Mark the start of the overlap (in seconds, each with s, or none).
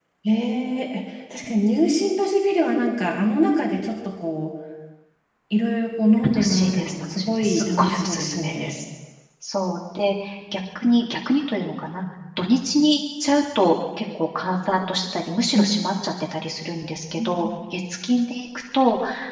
6.2 s